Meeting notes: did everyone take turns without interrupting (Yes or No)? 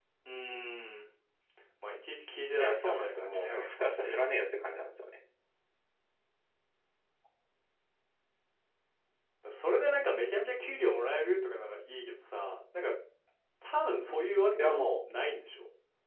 No